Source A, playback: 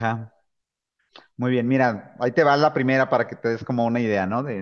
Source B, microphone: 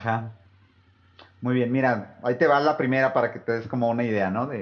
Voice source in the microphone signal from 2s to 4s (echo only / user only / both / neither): echo only